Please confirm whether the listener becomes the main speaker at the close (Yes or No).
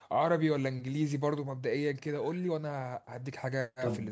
Yes